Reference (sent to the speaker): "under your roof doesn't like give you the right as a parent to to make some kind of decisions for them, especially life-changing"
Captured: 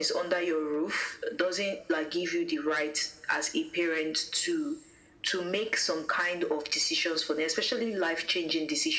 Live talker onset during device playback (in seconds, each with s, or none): none